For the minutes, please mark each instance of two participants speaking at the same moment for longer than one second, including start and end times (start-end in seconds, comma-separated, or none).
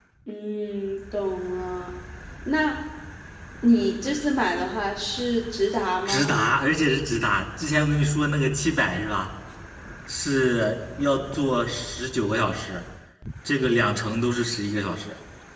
none